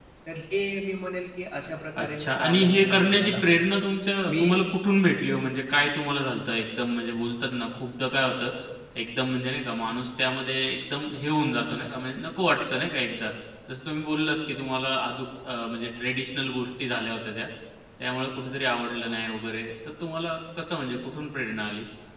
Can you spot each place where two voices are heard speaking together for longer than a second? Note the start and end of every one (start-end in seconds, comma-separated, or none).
2.0-3.4